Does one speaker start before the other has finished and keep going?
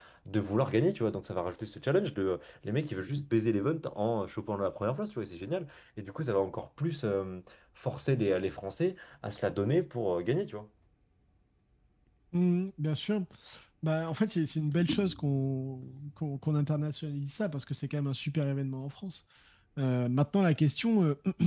No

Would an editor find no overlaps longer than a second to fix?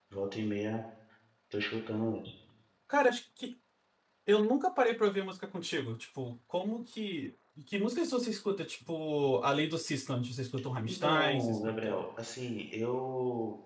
No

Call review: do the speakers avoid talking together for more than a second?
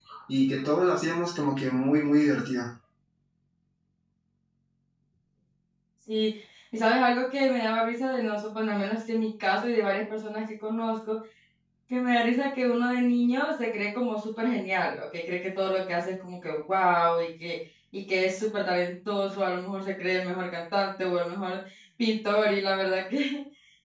Yes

